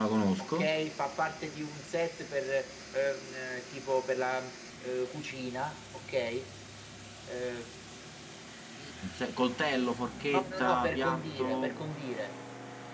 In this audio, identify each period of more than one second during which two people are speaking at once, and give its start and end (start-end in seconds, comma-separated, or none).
10.3-11.7